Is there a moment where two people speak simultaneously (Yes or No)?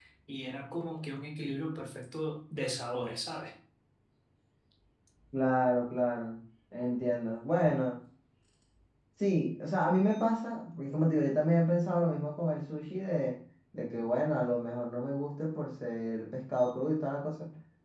No